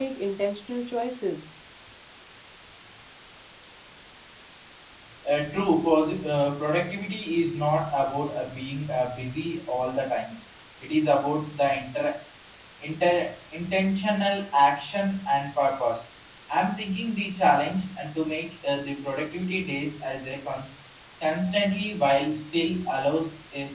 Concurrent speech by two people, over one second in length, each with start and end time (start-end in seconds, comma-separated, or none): none